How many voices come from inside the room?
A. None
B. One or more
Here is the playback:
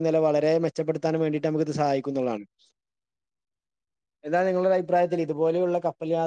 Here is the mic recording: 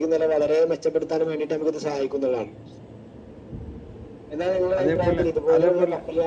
B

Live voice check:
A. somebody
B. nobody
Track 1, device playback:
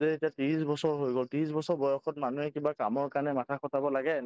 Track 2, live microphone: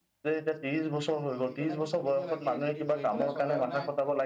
A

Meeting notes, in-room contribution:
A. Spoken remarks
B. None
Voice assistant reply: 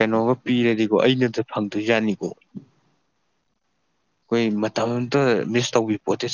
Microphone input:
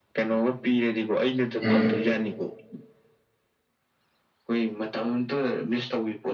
A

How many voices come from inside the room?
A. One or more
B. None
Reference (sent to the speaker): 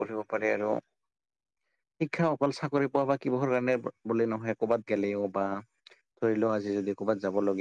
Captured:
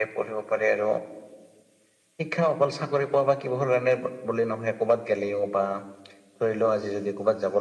B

